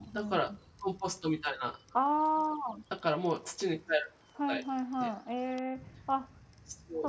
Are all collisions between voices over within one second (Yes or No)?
Yes